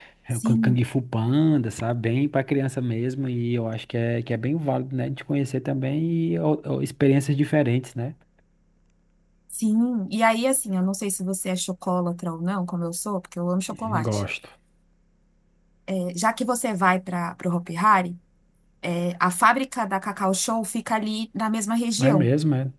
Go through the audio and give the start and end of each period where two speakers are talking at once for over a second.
none

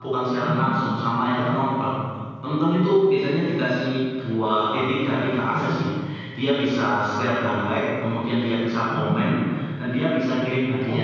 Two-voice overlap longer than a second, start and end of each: none

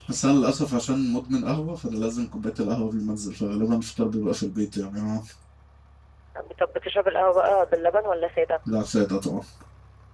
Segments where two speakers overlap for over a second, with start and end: none

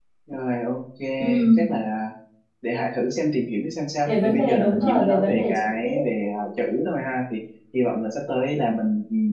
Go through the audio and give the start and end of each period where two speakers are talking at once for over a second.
4.1-6.2

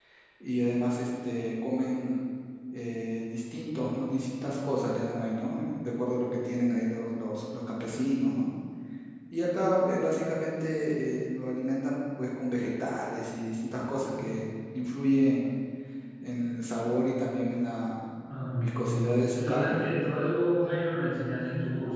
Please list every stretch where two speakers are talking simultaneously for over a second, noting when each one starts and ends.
18.6-19.8

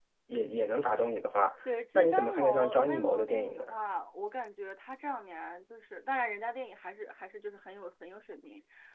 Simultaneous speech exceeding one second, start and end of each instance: 1.9-3.6

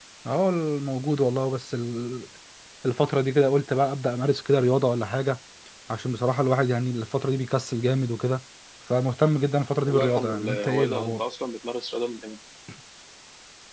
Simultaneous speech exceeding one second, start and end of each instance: 9.9-11.2

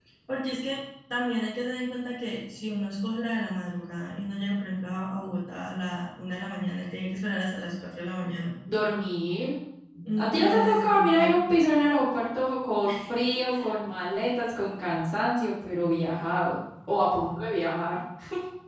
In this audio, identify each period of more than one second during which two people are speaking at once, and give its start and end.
10.2-11.4

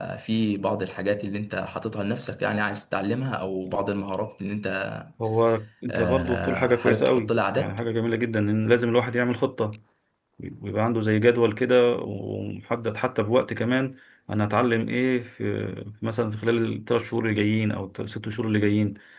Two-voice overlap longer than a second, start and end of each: 5.9-7.8

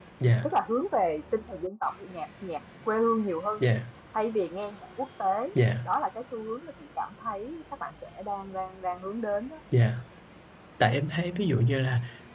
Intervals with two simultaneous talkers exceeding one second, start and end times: none

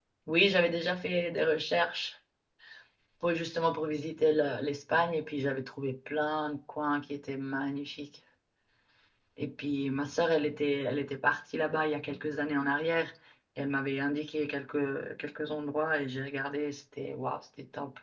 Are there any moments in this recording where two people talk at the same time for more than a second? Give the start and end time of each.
none

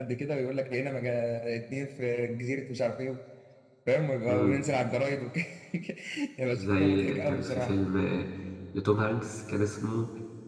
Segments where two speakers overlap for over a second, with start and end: 6.5-7.8

